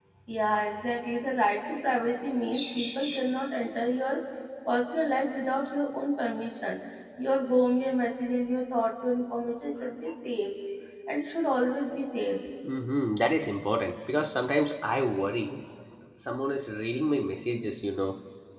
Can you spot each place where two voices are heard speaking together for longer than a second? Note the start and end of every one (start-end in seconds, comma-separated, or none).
none